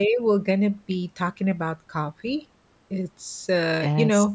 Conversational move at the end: listening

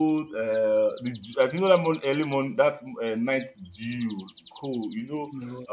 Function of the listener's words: listening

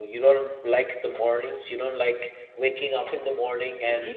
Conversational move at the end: taking over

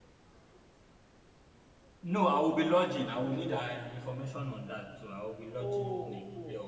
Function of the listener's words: taking over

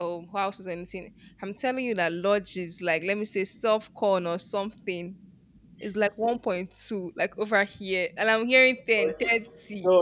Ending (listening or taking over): taking over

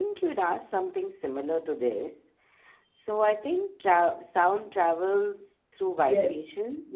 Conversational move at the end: taking over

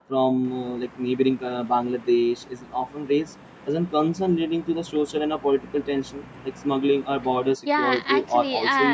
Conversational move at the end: taking over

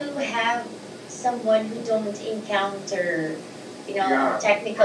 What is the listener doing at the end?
taking over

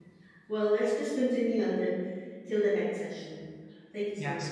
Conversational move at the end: taking over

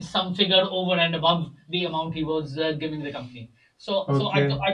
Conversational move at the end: listening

